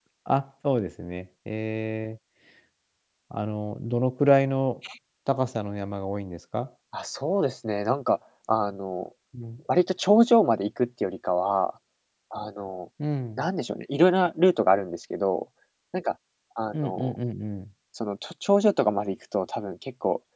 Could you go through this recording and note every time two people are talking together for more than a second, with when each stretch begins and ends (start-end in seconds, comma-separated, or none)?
none